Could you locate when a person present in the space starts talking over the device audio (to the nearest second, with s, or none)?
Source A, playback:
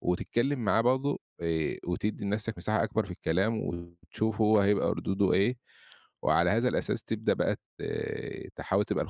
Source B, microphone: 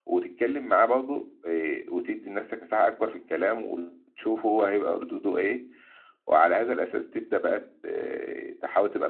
none